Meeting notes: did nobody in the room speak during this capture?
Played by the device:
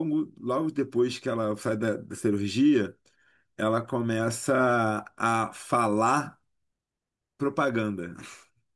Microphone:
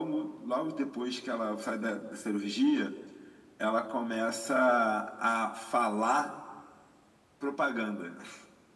Yes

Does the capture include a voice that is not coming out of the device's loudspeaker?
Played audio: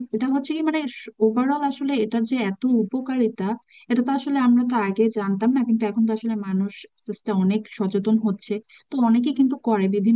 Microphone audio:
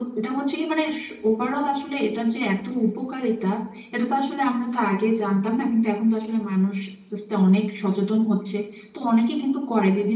No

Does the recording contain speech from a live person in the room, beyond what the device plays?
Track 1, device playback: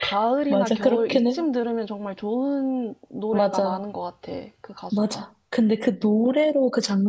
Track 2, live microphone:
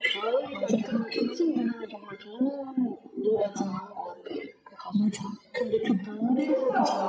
Yes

